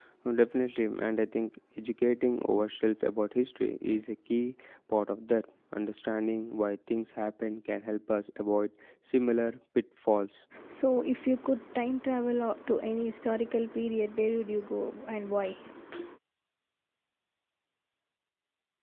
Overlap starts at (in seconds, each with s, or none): none